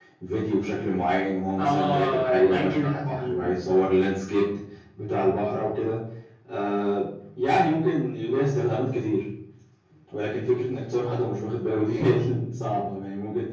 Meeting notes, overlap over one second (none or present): present